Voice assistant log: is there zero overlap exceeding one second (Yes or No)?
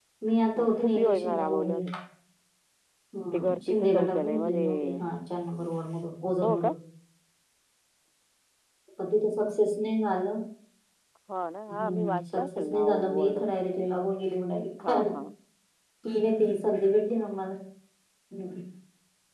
No